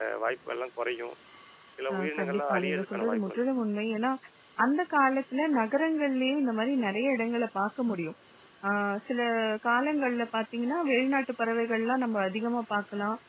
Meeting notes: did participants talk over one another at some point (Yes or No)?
Yes